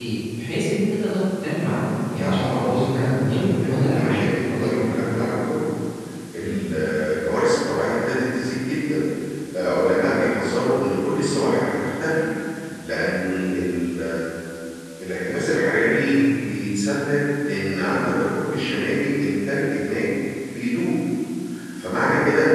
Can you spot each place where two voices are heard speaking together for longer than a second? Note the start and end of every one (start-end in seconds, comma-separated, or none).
2.2-5.2